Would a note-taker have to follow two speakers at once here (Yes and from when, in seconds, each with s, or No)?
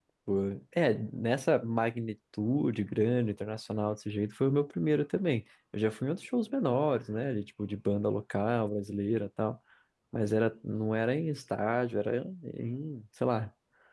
No